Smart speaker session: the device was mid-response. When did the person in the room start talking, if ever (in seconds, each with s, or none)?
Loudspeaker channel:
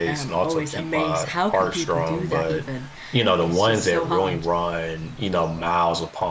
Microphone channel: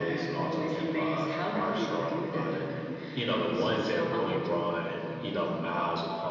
none